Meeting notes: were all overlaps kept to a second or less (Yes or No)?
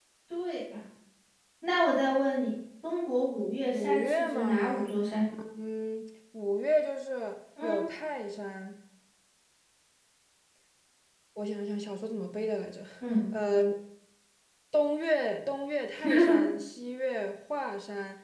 No